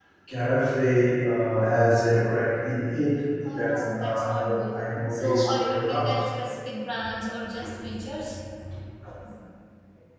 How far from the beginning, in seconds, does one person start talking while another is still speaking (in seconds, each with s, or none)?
3.5 s